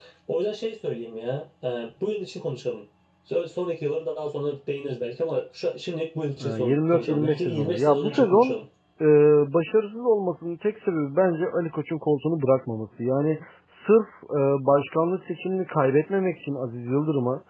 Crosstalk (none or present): present